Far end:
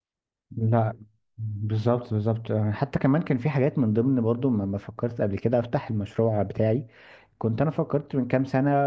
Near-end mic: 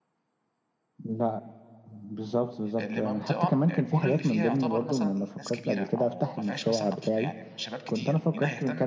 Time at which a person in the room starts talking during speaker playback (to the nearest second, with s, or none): 3 s